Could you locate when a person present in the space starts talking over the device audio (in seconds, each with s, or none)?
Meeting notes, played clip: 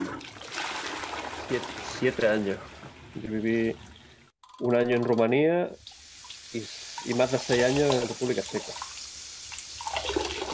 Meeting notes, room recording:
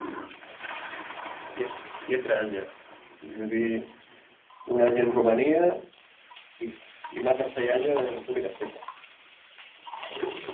none